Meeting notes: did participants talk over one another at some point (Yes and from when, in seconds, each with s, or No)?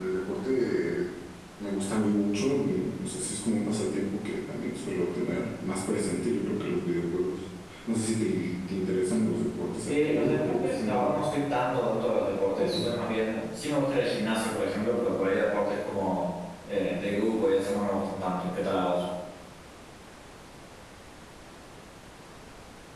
Yes, from 9.9 s